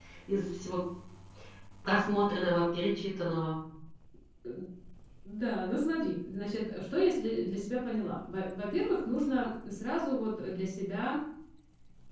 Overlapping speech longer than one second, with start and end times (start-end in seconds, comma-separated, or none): none